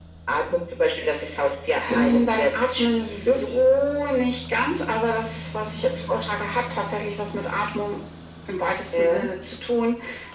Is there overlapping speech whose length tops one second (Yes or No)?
Yes